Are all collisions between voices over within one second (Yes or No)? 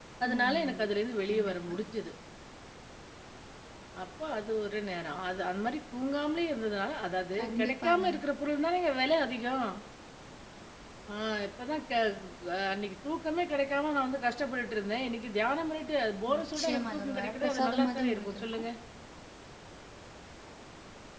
No